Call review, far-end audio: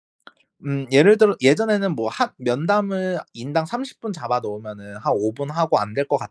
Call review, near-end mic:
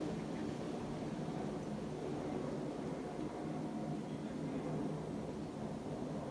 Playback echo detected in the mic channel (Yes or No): No